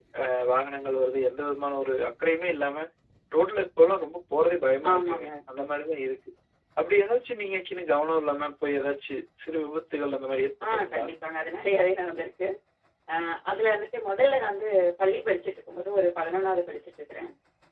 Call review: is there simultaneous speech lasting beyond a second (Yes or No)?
No